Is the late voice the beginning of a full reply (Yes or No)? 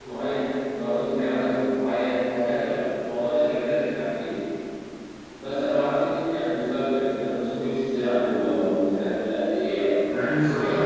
Yes